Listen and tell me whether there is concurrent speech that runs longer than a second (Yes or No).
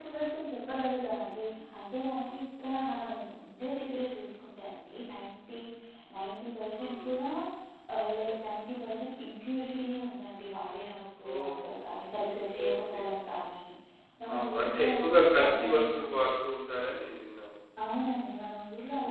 Yes